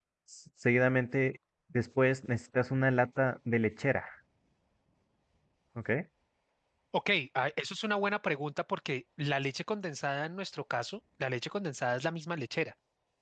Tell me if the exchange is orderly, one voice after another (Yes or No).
Yes